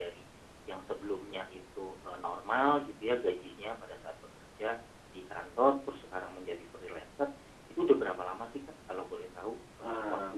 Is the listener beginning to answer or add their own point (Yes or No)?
Yes